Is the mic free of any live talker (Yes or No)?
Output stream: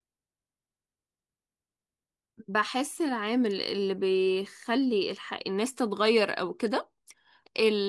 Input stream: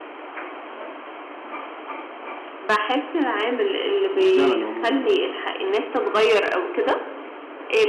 No